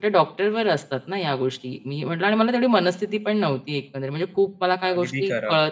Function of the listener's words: listening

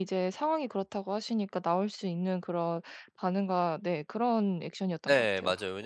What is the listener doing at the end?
taking over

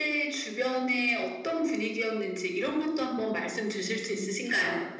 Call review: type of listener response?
taking over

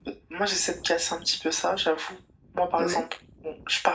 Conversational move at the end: listening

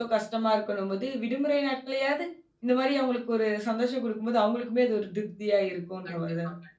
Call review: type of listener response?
taking over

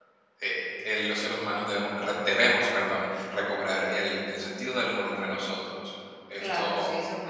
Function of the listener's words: taking over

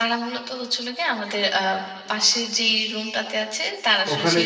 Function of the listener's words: listening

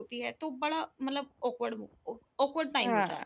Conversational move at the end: listening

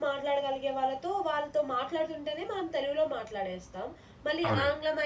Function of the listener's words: listening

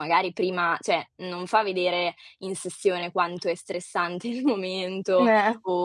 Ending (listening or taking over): listening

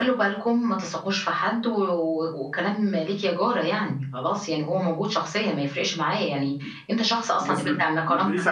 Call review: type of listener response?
taking over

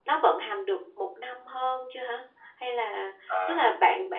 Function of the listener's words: listening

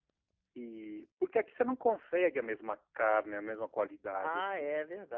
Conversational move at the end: taking over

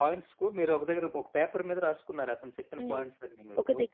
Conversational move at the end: taking over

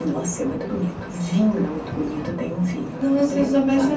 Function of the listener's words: taking over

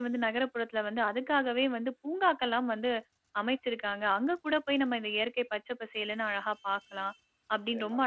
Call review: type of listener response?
listening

